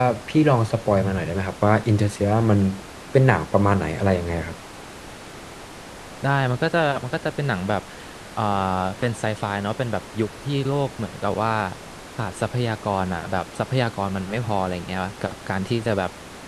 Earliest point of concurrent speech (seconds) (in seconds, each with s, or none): none